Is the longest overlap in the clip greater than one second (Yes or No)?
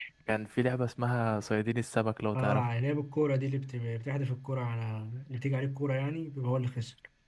No